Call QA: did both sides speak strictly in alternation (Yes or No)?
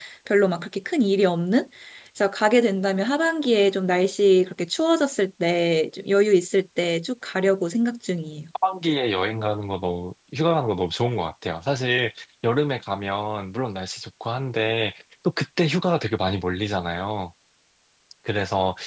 Yes